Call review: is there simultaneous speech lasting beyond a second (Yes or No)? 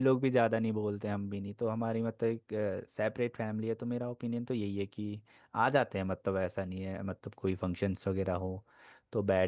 No